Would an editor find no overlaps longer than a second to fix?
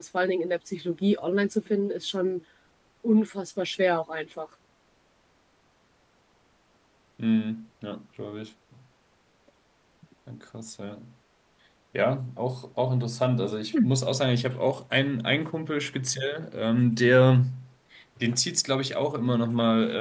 Yes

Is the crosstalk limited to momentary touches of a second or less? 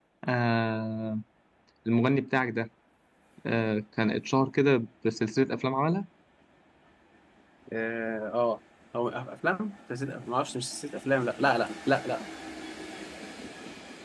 Yes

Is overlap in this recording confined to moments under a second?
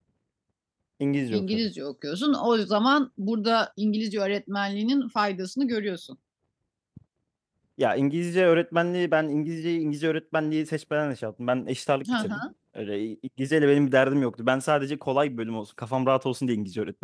Yes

